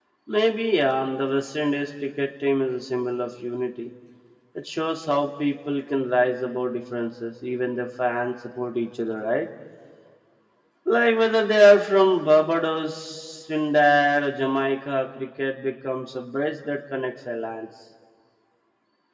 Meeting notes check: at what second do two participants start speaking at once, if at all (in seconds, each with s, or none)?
none